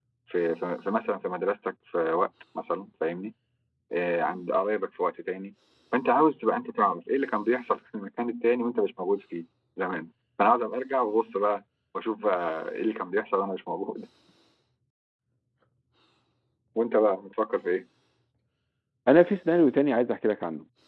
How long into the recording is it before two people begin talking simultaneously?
none

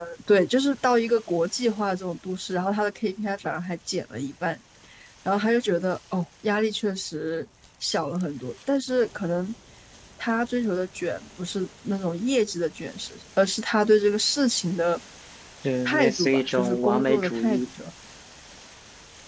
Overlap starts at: 15.8 s

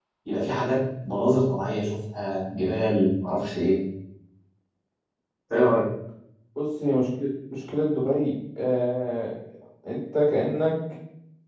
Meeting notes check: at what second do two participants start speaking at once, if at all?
none

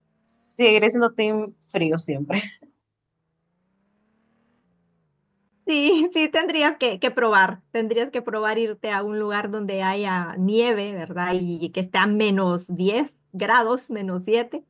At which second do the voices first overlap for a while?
none

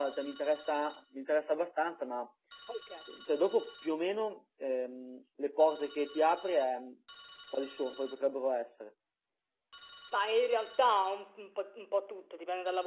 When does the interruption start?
none

